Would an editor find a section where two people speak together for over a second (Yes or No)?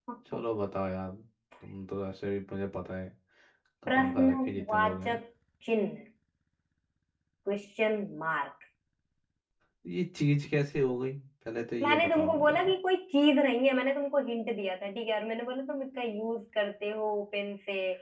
Yes